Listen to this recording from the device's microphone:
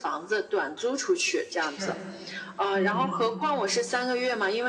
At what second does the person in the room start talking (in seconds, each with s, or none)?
1.6 s